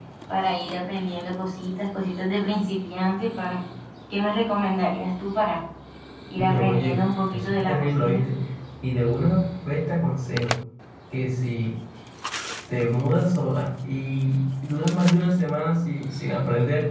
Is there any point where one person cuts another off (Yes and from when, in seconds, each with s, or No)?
Yes, from 6.4 s